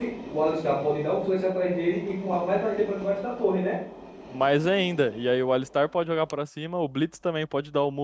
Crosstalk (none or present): none